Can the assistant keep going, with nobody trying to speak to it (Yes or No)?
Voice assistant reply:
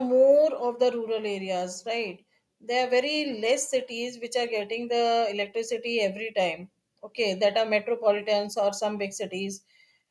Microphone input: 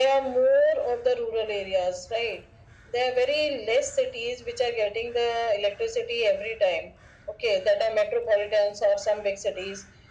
Yes